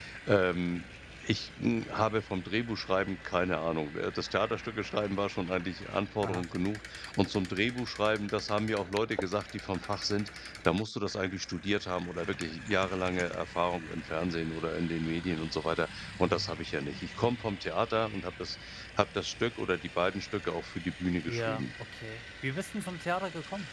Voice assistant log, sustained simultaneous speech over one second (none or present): none